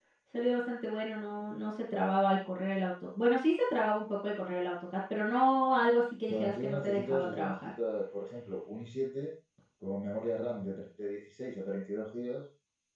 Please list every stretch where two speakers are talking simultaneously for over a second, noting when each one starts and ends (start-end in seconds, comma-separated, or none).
6.3-7.7